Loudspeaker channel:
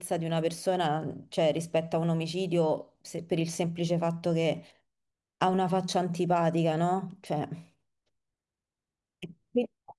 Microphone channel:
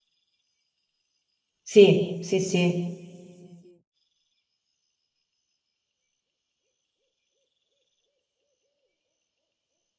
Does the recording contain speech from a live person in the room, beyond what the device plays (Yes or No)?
Yes